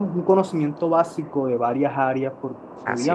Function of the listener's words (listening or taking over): listening